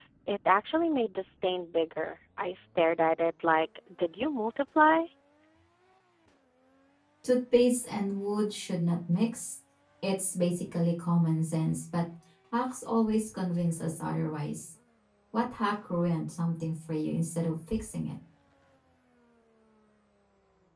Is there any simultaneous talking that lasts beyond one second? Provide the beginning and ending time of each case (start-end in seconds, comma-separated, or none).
none